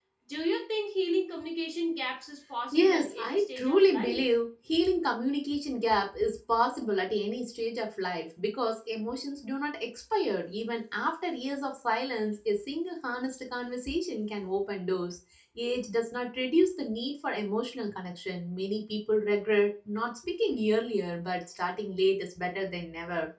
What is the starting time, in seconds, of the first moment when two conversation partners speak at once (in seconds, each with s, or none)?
2.7 s